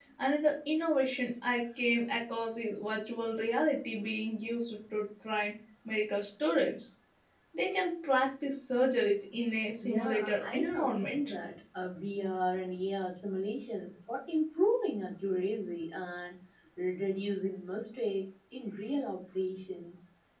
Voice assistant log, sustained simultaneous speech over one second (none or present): present